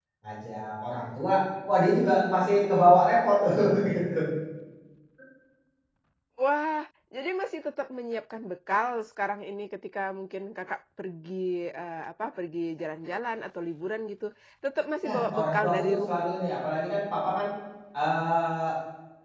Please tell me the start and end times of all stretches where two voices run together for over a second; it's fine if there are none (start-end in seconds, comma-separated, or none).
15.0-16.3